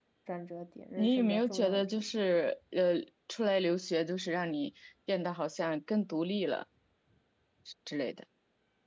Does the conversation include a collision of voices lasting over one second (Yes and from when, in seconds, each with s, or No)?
Yes, from 0.9 s